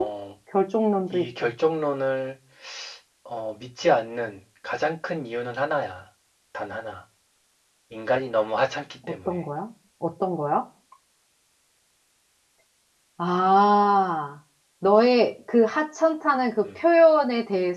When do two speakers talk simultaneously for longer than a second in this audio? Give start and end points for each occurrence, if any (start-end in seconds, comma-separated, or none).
none